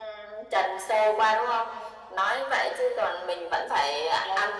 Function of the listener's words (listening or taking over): taking over